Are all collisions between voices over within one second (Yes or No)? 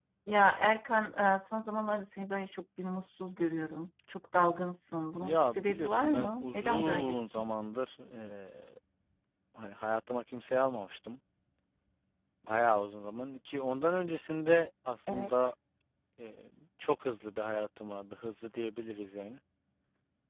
No